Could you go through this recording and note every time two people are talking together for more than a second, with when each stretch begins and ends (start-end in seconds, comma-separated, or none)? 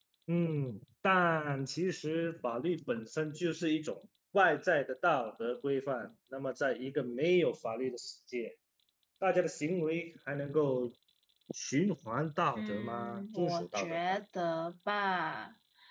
12.6-14.2